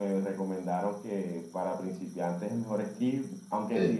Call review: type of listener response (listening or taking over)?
listening